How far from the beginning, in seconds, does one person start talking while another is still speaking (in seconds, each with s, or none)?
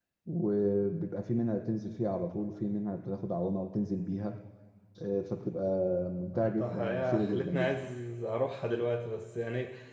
6.3 s